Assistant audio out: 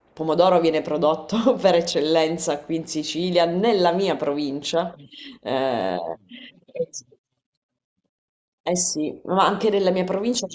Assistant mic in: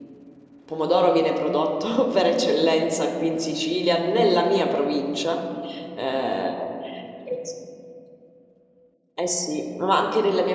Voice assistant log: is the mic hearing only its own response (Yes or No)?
Yes